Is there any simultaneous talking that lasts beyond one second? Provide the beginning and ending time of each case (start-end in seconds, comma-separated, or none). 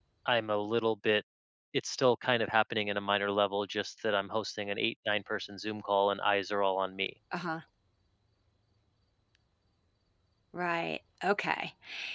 none